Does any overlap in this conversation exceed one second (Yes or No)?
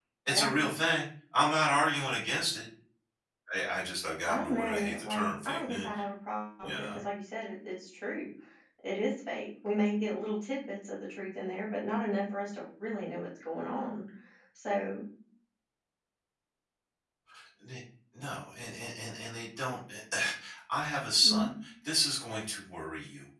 Yes